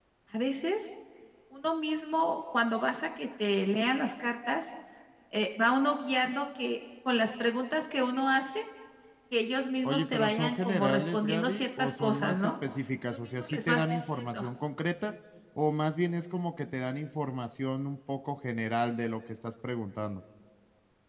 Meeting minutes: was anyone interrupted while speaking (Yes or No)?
Yes